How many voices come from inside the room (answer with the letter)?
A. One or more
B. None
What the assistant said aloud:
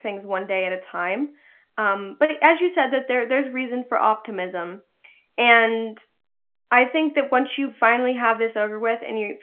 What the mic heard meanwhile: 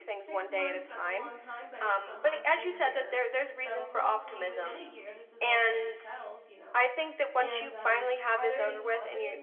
A